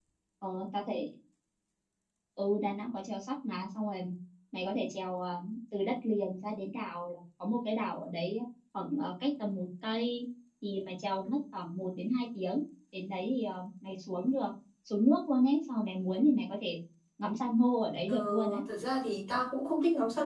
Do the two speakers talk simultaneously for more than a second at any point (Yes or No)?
No